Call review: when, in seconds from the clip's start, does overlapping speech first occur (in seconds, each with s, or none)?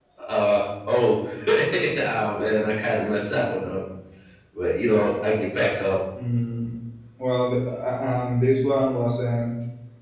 none